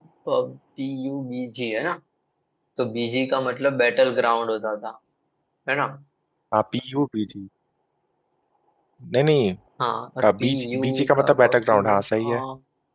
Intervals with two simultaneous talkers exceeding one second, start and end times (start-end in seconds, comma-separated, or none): 10.4-12.3